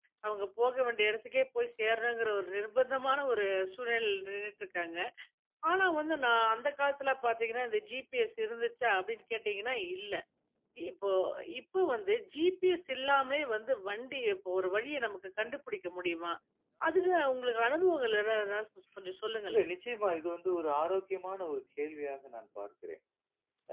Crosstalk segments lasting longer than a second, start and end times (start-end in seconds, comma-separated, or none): none